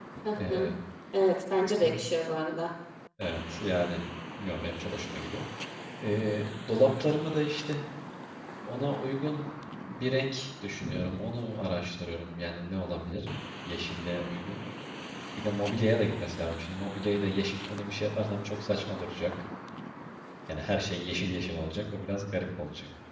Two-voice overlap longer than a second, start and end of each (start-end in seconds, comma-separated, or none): none